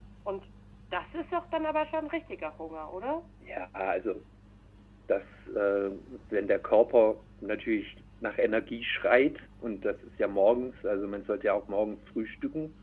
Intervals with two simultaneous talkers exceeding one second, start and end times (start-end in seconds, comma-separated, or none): none